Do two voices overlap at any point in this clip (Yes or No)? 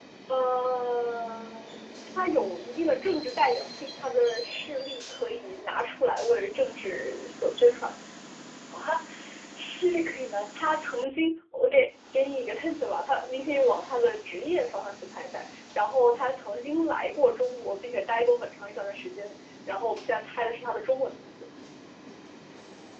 No